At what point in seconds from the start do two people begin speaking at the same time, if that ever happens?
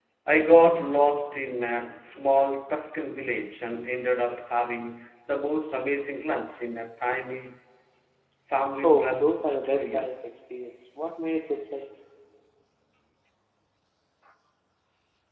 8.8 s

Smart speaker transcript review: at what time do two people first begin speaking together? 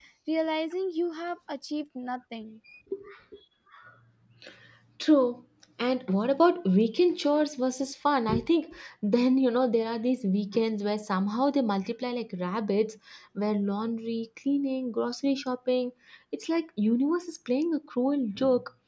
none

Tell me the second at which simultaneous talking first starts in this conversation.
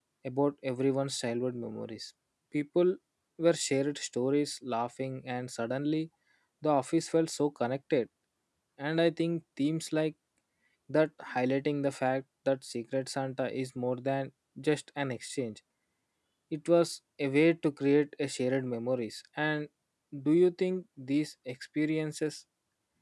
none

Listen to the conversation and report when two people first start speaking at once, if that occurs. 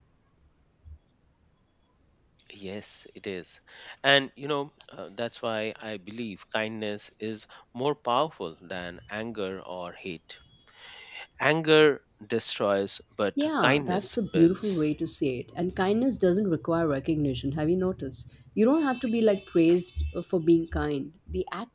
13.4 s

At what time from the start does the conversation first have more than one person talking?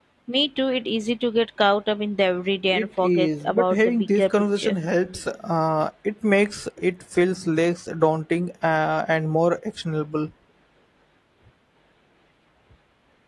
2.7 s

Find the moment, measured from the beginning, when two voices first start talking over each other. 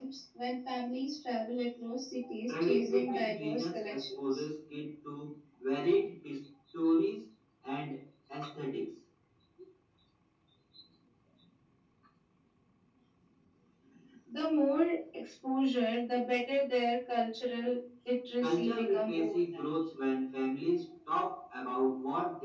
2.5 s

